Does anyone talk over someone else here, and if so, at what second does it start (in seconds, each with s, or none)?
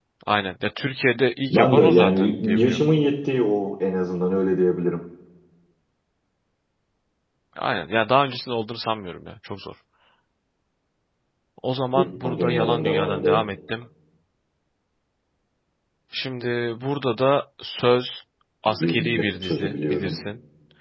1.5 s